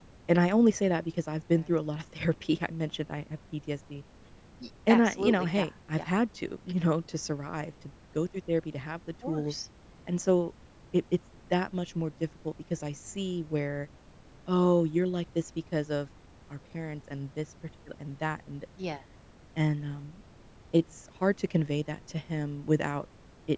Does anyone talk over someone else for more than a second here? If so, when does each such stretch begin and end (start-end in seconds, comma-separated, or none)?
4.9-6.1